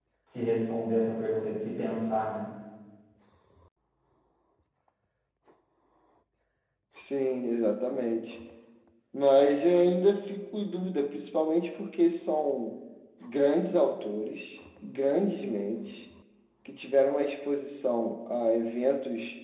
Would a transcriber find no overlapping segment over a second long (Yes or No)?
Yes